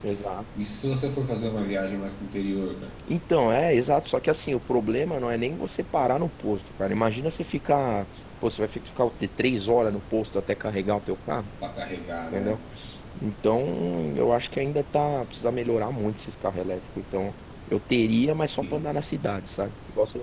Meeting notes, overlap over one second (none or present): none